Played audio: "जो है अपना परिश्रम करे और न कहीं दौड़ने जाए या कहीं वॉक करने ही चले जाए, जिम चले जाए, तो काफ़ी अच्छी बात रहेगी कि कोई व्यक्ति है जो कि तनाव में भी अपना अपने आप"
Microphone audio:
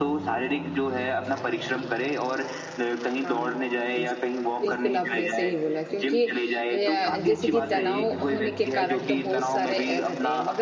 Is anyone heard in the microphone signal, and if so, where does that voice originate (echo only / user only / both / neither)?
both